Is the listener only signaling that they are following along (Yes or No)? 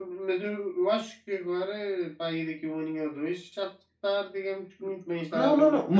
No